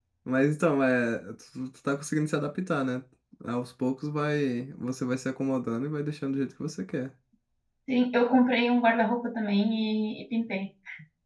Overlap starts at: none

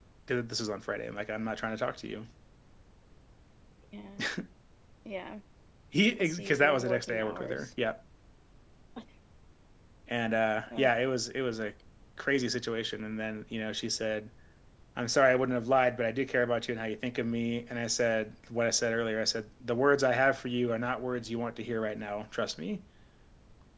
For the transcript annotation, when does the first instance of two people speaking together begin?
6.2 s

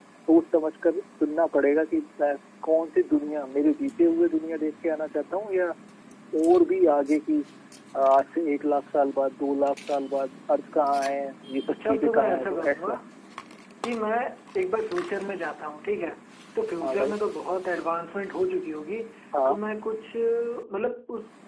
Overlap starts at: 11.7 s

